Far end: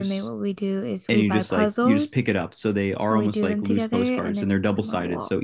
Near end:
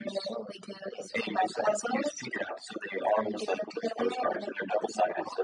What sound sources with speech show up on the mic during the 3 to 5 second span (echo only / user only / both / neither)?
echo only